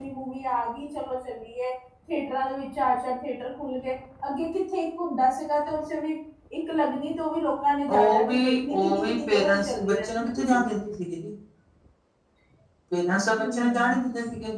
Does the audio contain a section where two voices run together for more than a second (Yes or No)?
Yes